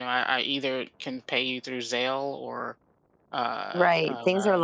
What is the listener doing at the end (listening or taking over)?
taking over